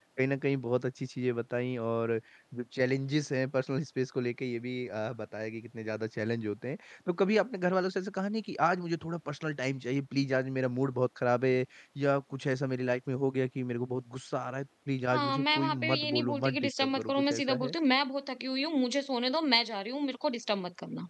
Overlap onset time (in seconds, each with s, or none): 15.1 s